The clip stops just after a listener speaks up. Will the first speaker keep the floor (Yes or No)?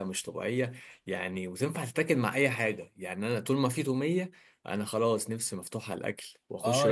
No